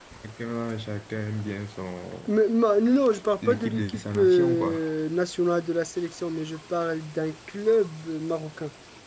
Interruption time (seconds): 3.4 s

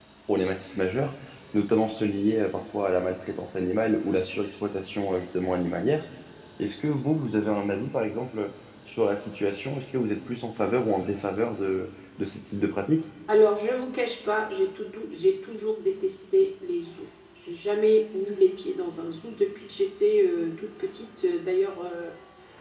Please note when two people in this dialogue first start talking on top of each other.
none

